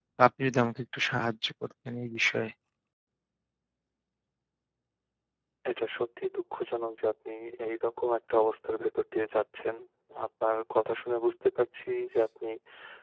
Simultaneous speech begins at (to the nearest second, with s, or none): none